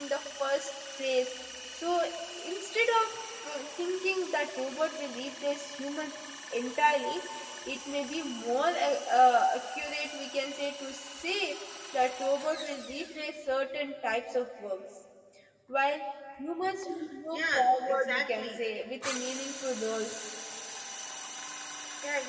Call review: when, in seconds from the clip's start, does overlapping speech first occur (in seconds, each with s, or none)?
17.3 s